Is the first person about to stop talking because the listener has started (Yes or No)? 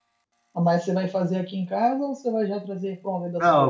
Yes